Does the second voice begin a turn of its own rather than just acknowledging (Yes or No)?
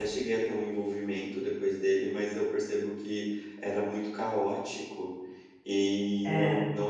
No